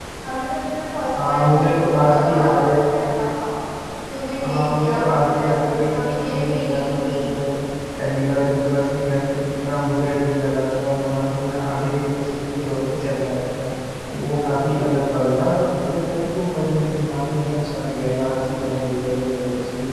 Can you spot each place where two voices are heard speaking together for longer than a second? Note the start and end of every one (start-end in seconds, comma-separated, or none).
1.2-2.8, 4.4-7.1